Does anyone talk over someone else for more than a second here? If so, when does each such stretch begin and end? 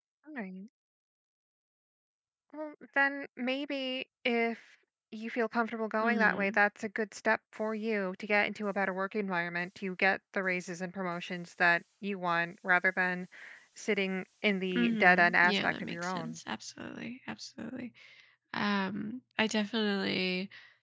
14.7-16.4

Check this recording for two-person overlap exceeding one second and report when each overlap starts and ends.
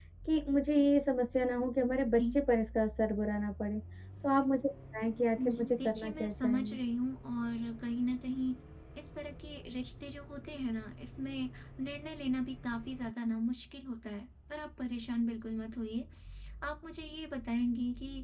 5.5-6.8

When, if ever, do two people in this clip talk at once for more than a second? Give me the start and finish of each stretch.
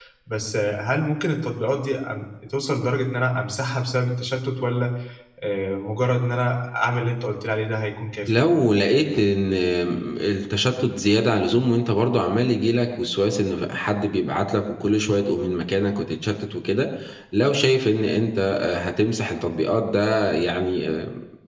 none

